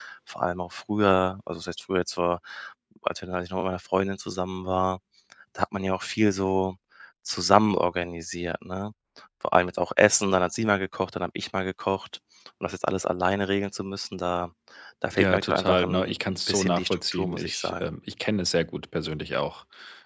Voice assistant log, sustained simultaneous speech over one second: present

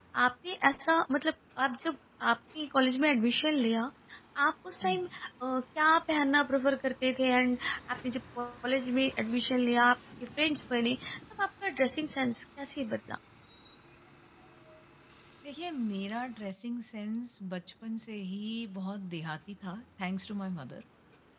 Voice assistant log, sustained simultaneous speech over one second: none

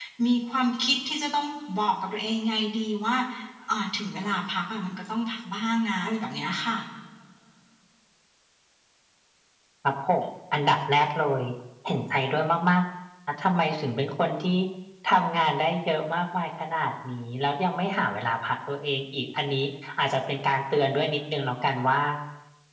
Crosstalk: none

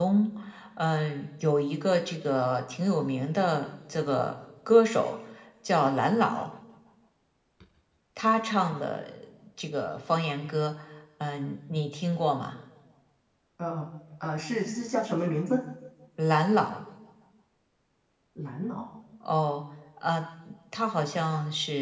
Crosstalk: none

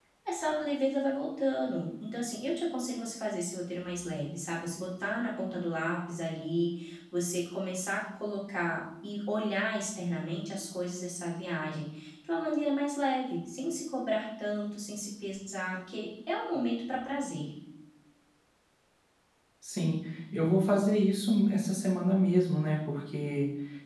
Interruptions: none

